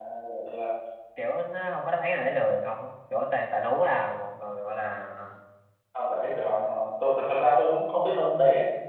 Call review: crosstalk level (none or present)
none